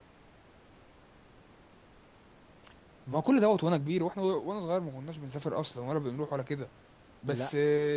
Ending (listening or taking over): listening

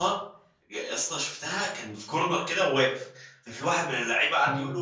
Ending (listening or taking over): listening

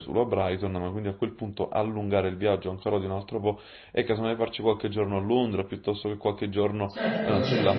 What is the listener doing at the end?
taking over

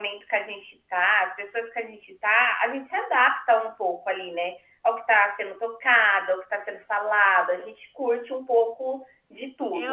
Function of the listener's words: taking over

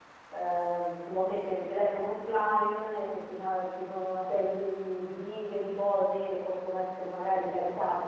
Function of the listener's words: listening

